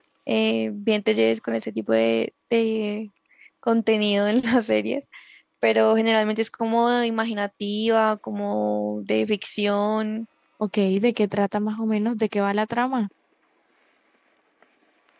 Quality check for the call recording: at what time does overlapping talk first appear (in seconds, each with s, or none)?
none